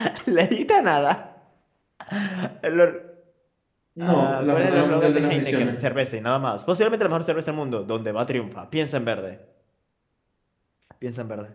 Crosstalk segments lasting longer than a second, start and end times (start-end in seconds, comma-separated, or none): 4.0-5.7